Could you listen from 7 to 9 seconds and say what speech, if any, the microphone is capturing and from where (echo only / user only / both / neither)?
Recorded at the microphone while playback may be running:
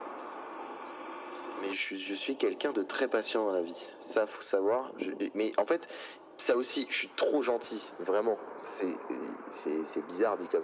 echo only